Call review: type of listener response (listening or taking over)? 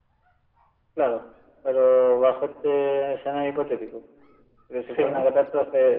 listening